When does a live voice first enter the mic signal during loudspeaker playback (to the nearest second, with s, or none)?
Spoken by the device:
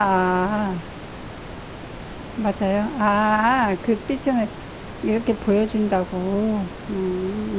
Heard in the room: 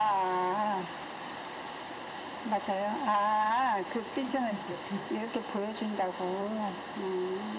4 s